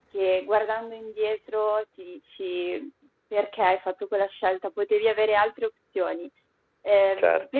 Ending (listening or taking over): listening